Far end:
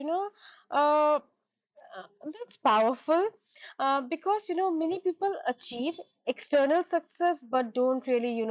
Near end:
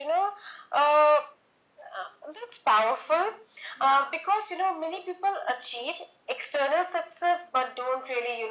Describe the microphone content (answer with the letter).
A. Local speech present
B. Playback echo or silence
A